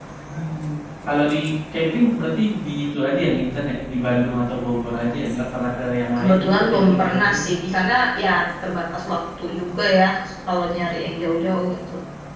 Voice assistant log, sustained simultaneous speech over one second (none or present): present